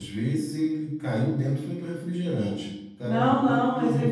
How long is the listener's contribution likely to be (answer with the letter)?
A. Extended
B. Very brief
A